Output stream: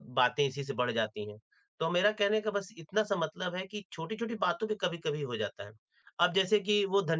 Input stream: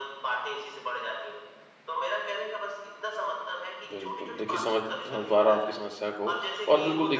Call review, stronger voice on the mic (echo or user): user